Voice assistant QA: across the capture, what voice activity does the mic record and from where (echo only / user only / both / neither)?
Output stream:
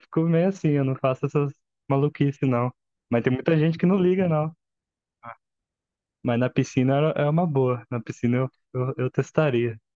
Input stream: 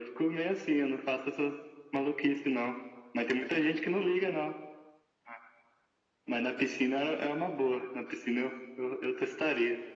echo only